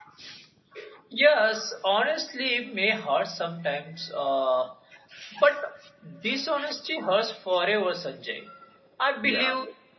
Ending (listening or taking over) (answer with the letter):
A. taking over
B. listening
B